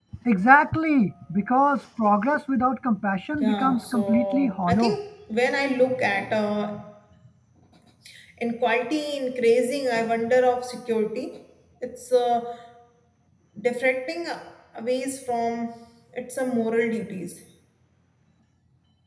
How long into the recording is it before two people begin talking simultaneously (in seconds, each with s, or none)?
3.4 s